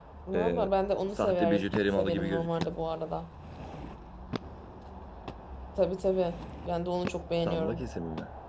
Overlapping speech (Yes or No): Yes